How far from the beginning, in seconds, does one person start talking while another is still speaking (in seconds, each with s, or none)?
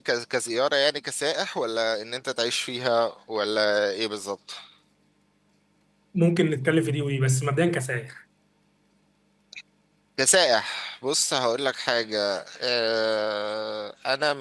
none